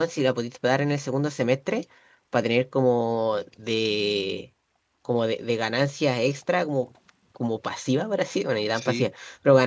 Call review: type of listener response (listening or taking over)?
listening